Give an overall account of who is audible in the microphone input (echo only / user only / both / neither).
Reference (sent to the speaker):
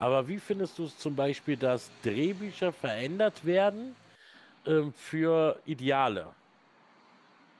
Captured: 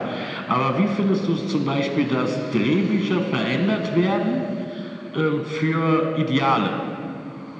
echo only